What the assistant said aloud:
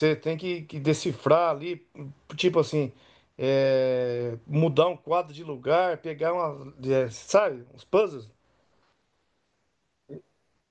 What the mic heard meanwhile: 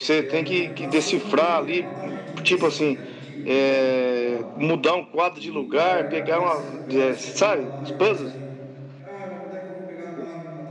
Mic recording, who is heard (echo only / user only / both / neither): both